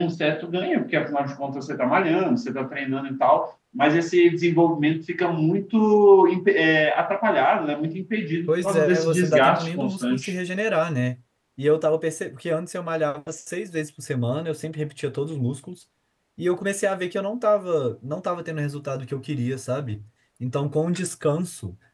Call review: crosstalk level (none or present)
present